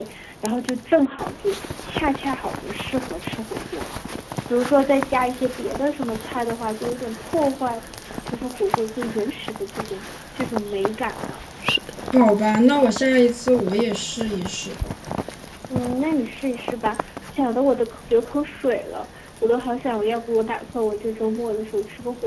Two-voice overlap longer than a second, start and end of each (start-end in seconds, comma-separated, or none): none